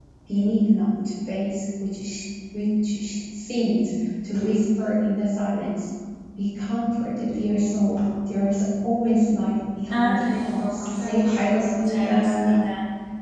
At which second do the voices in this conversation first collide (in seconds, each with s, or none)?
9.9 s